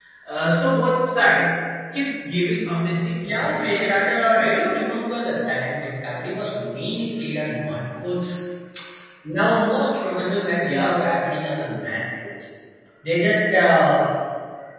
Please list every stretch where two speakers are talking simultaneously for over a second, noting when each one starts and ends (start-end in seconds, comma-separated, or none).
3.3-4.6